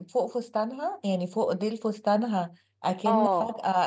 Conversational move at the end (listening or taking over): listening